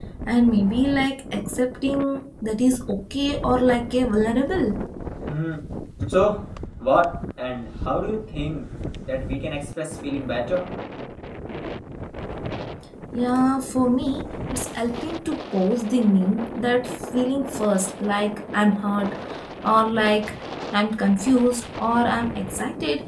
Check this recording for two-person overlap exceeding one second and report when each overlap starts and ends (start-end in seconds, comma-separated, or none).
none